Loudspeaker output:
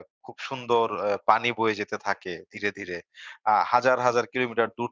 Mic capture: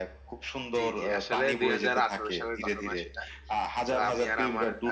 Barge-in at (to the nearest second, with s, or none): 1 s